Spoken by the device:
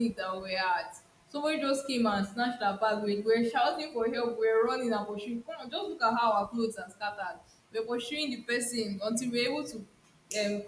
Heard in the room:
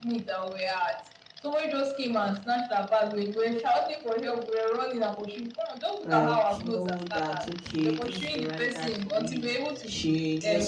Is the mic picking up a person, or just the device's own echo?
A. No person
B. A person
B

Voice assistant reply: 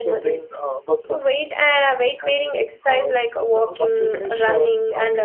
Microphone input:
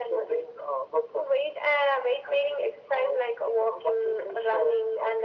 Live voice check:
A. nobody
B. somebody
A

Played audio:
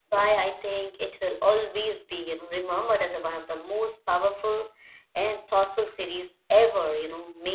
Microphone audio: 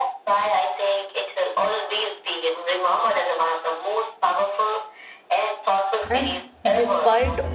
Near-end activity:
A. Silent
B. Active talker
B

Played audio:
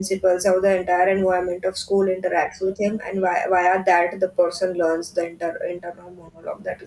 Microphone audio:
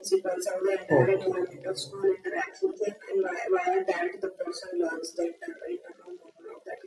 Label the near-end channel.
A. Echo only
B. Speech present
B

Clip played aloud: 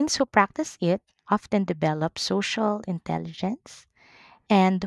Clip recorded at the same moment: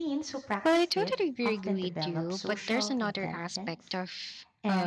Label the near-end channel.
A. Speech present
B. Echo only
A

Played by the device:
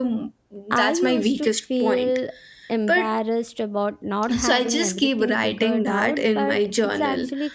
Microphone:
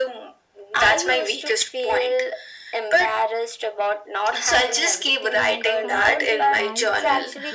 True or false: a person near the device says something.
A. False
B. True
B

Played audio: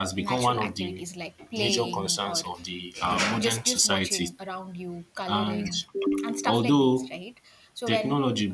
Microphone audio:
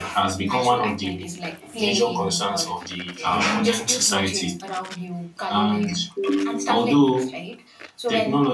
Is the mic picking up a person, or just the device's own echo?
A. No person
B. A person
A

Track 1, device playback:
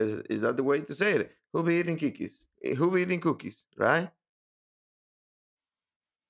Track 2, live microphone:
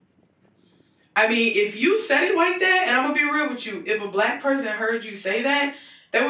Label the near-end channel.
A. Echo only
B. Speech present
B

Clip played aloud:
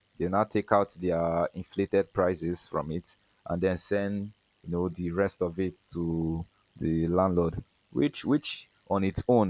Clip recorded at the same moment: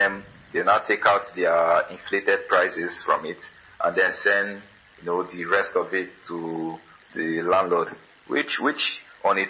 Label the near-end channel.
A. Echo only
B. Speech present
A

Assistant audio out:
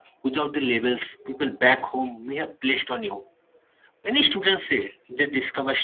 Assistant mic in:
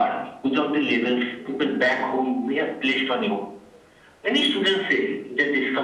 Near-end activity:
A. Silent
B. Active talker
A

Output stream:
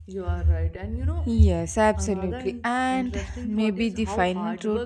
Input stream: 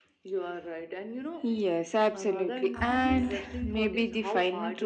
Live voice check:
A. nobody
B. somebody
B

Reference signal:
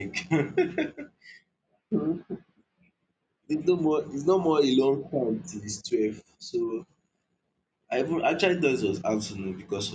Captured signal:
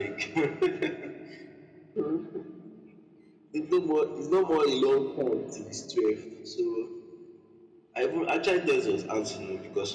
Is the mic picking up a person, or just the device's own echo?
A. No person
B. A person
A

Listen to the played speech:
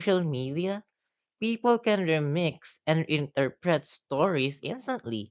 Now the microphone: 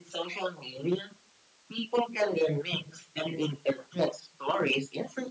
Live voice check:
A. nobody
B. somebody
A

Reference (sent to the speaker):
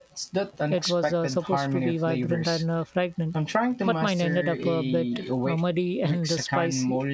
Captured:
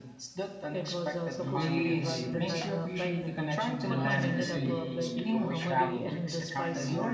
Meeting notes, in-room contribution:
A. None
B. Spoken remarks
B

